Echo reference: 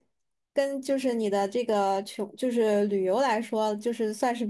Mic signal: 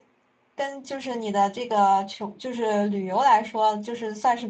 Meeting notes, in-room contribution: none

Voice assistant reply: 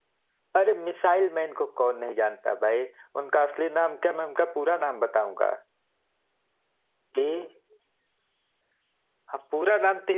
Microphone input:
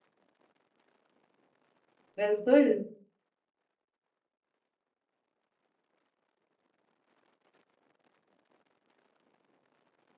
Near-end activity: present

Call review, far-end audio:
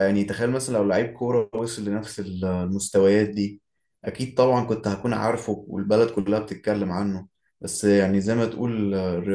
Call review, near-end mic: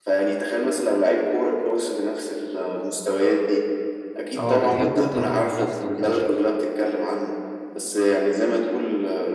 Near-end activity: present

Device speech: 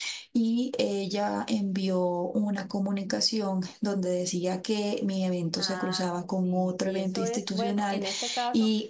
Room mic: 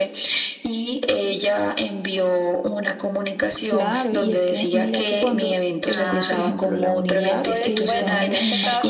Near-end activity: present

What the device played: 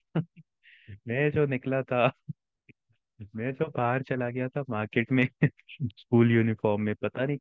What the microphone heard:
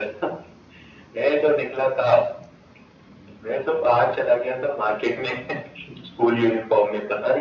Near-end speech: none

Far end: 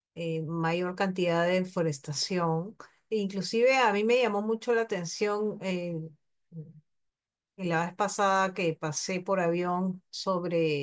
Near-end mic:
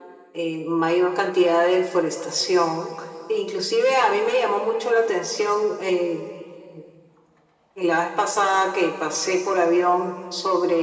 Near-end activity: none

